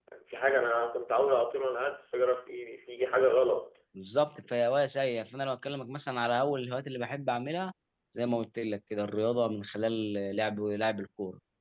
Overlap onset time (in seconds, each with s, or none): none